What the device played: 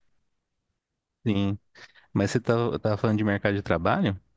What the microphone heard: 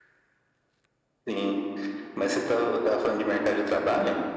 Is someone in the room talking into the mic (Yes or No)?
No